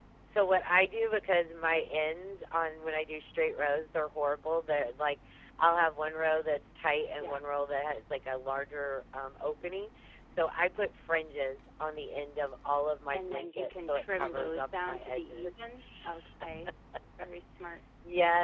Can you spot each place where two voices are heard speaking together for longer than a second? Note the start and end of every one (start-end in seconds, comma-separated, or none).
13.1-15.7